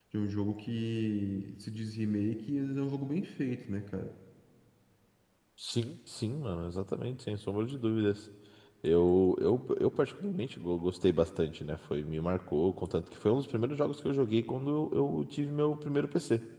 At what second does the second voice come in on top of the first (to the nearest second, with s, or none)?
none